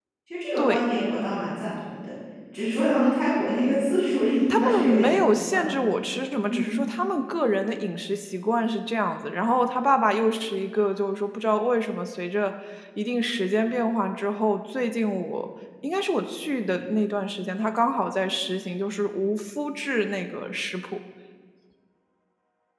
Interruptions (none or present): present